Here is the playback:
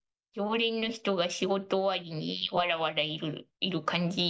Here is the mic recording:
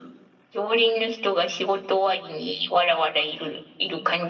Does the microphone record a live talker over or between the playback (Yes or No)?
No